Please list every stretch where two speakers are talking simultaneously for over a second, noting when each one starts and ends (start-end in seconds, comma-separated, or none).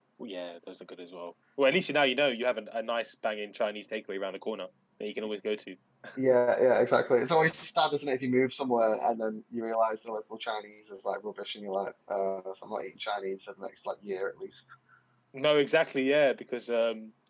none